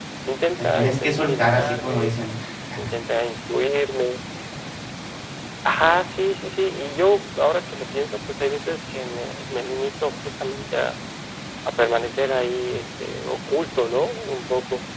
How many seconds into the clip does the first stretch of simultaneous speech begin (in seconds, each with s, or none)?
0.6 s